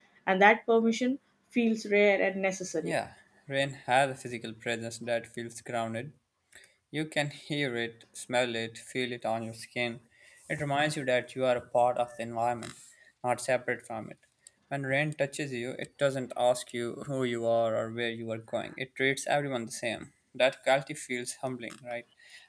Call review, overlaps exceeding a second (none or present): none